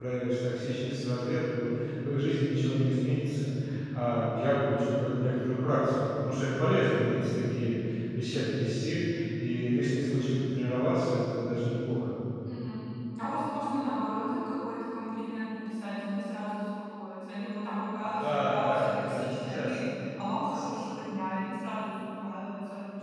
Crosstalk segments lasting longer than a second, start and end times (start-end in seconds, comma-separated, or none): 18.0-19.8